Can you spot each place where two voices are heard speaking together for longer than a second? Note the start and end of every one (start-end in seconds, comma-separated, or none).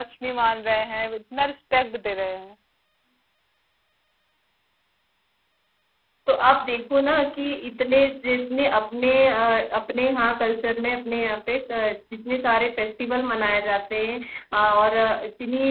none